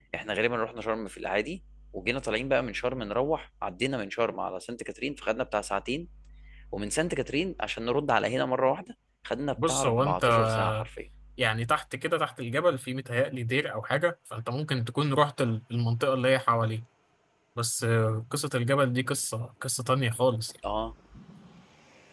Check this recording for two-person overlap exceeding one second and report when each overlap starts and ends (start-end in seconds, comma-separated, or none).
9.6-10.9